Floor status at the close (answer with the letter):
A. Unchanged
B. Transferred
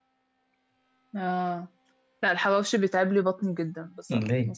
A